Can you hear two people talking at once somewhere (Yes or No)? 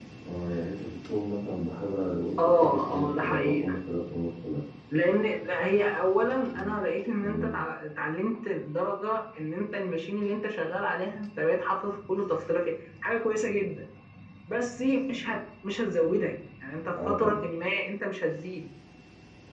Yes